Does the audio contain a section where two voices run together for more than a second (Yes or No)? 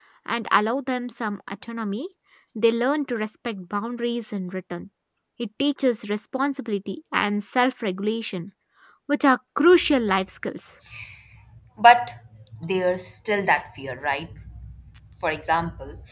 No